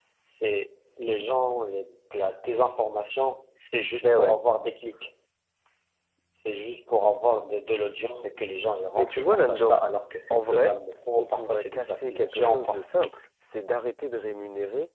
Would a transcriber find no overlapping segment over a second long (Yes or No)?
No